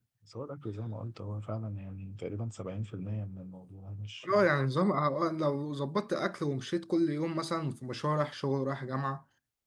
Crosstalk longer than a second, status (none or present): none